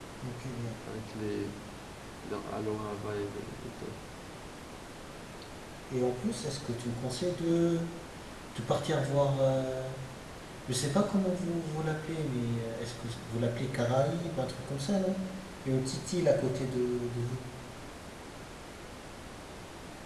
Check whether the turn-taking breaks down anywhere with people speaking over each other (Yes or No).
No